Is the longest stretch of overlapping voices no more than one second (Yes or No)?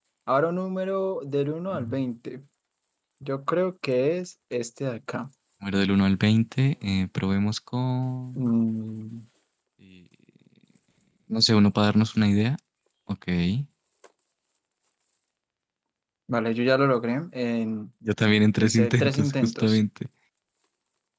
No